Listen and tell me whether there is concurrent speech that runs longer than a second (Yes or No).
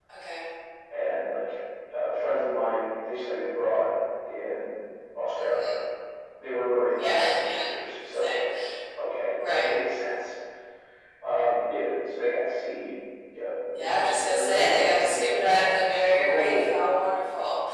Yes